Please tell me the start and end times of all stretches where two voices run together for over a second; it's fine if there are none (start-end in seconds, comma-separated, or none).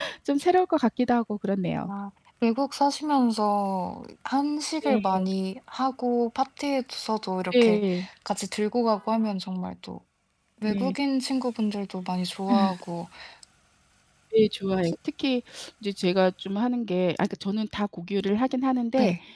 none